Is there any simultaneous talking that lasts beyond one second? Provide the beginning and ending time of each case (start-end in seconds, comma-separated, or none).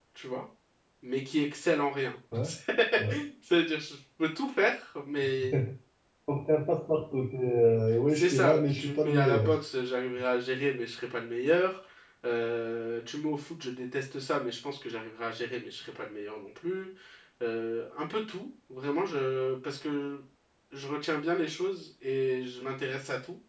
8.1-9.5